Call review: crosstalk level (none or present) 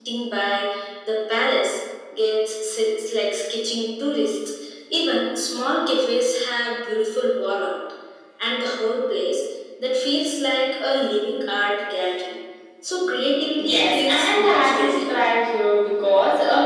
present